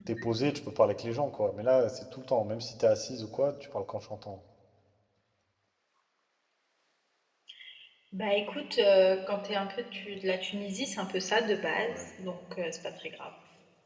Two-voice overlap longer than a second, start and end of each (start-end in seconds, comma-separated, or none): none